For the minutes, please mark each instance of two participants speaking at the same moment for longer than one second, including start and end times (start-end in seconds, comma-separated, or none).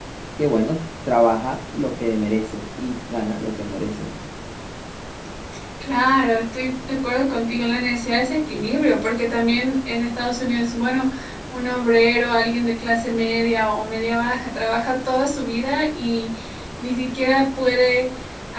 none